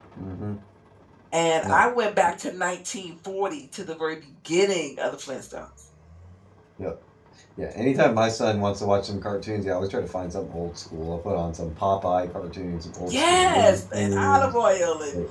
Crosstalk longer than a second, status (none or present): present